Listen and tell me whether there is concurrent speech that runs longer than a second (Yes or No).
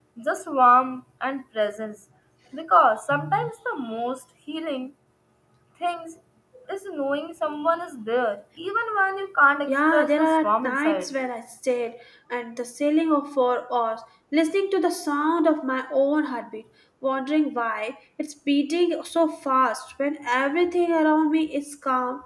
Yes